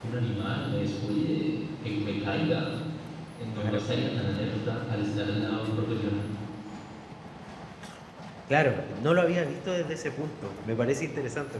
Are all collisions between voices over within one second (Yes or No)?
Yes